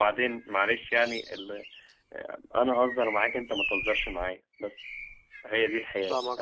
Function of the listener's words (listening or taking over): taking over